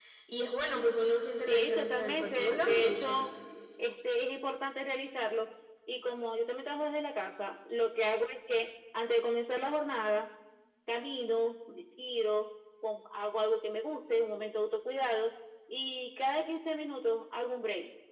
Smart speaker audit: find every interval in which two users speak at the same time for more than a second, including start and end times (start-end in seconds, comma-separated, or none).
1.5-3.2